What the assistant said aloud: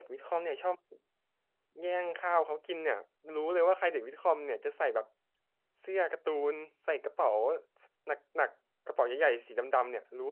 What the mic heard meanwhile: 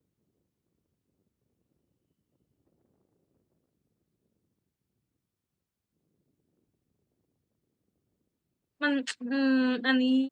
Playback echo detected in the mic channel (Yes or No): No